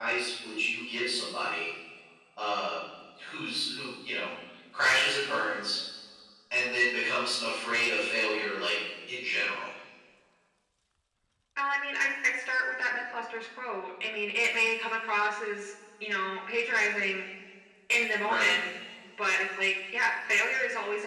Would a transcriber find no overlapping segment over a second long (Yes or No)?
Yes